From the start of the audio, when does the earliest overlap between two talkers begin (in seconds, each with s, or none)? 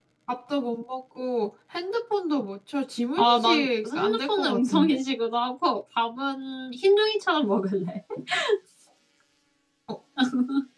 3.2 s